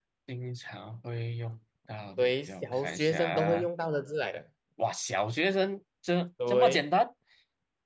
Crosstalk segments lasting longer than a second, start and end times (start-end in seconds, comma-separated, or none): 2.2-3.7